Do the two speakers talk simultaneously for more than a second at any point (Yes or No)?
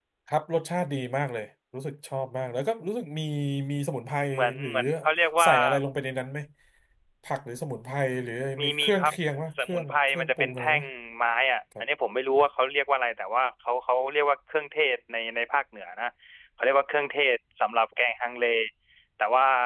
Yes